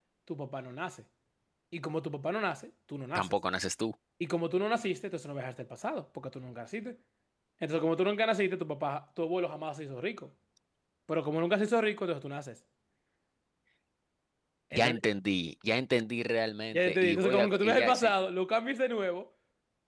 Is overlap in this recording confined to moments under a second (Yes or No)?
No